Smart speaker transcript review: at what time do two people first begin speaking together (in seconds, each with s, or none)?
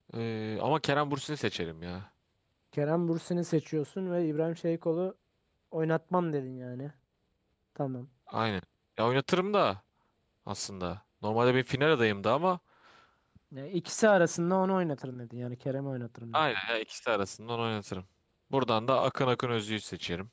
none